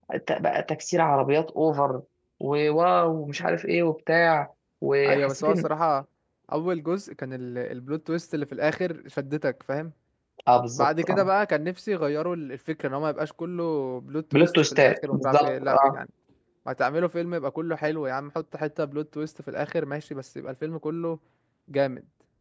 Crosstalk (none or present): present